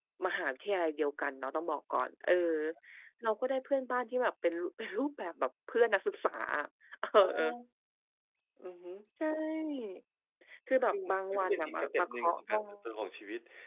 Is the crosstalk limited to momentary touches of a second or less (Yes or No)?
No